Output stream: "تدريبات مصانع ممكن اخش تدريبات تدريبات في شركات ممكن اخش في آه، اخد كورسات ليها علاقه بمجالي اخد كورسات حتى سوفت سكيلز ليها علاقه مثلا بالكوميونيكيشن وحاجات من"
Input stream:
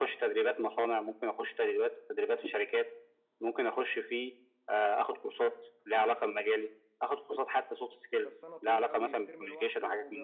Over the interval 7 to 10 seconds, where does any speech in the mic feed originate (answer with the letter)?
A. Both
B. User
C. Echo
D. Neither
A